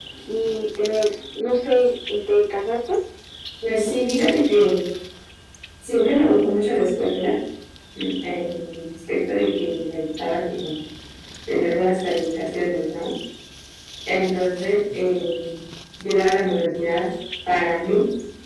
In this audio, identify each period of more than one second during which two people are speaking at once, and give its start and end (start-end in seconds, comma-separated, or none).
none